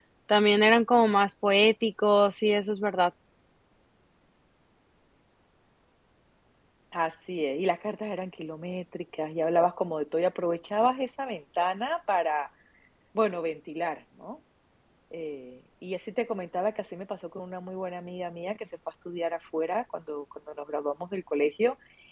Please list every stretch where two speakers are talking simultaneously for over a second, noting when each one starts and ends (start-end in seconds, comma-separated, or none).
none